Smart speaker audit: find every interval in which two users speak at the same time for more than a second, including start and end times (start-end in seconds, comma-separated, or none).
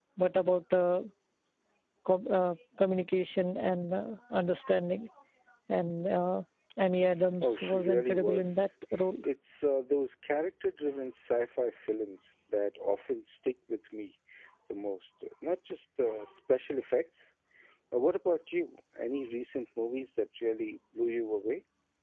7.4-8.7